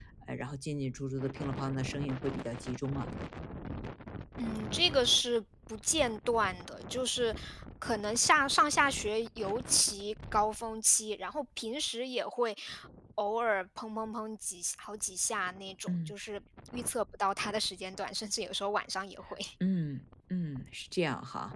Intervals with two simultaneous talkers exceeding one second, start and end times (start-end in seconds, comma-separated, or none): none